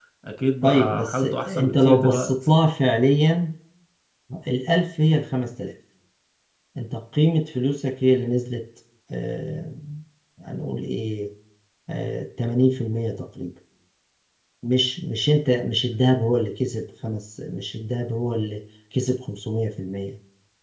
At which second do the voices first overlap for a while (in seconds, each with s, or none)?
0.6 s